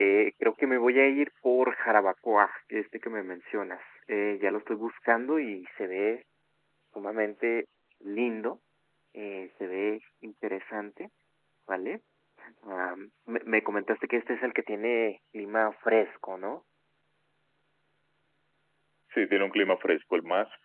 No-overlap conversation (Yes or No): Yes